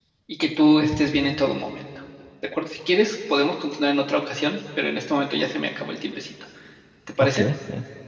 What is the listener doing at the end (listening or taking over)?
taking over